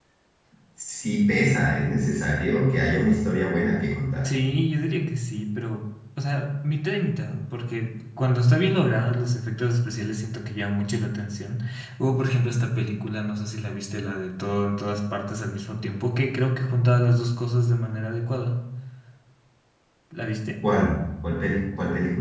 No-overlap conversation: Yes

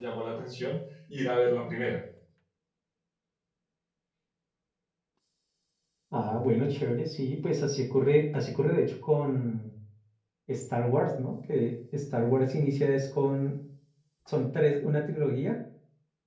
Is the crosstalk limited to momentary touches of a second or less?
Yes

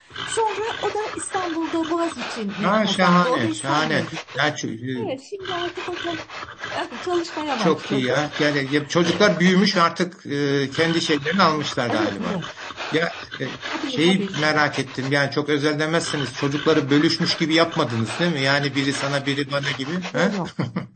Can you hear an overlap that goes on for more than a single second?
Yes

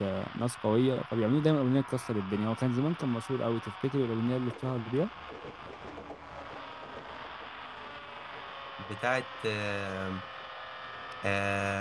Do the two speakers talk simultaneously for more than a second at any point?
No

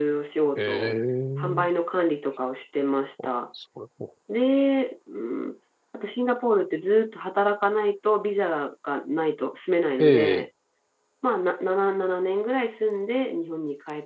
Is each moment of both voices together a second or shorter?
Yes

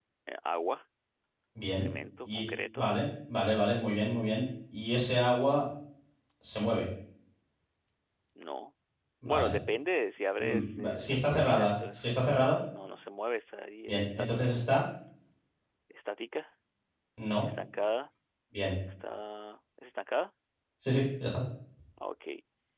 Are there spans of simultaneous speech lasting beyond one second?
Yes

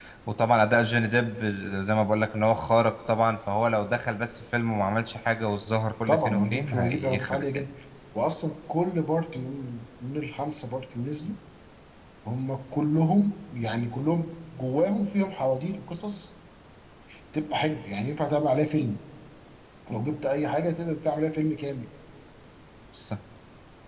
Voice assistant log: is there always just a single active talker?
No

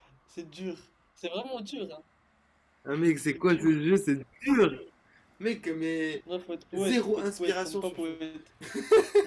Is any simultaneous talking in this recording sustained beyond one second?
Yes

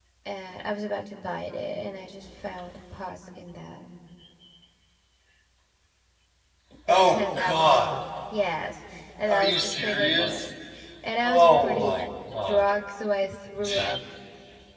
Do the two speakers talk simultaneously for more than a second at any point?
Yes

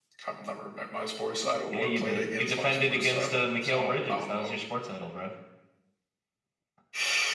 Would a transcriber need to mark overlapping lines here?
Yes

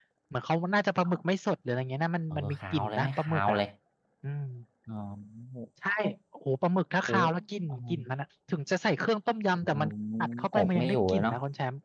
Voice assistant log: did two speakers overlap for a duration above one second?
Yes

